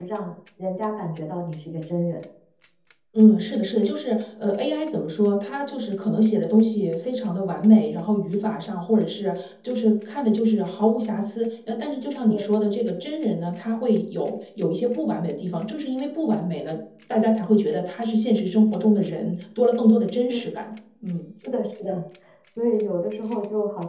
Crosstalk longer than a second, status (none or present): none